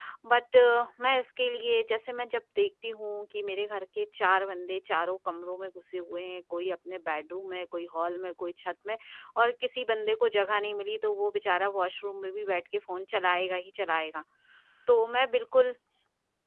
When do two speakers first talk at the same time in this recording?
none

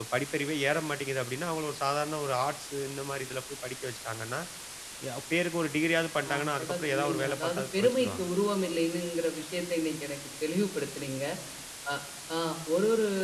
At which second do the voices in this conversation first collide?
6.2 s

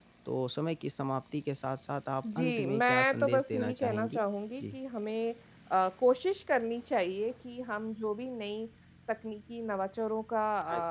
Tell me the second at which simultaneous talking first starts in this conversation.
2.2 s

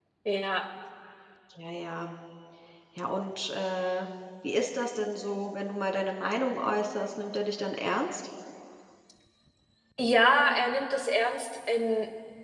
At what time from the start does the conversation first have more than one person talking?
none

